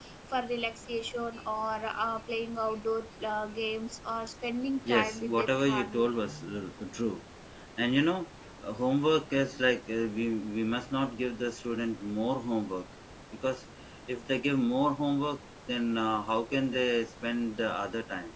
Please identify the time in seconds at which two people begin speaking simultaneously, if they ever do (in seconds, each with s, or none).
4.8 s